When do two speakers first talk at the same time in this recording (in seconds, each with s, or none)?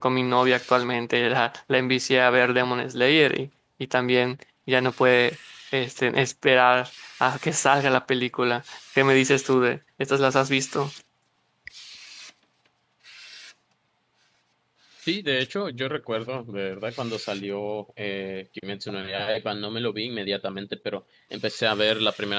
none